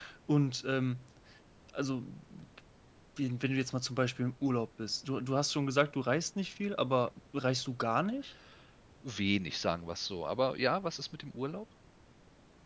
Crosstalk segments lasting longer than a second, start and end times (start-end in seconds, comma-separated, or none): none